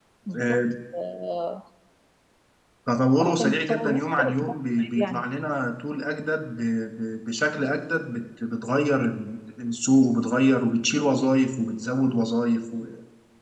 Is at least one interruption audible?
Yes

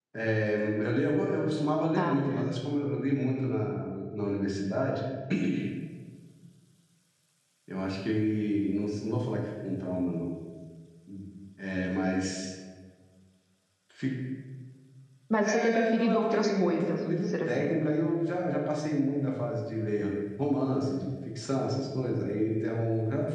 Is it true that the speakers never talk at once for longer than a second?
No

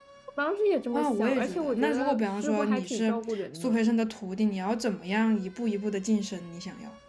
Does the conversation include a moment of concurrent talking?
Yes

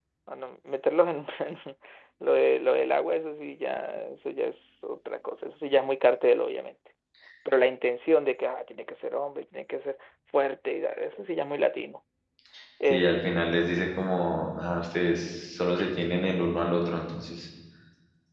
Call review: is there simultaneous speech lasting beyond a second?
No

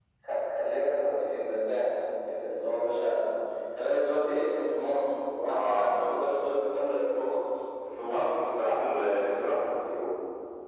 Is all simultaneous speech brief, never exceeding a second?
Yes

